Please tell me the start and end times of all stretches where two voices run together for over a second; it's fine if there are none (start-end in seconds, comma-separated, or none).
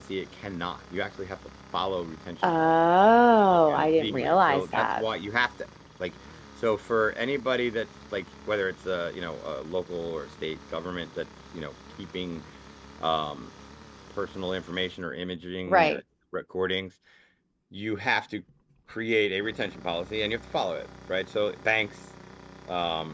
3.5-5.0